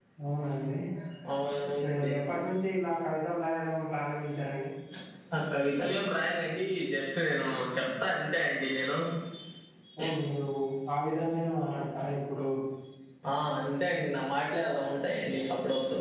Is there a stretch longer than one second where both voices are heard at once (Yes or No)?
No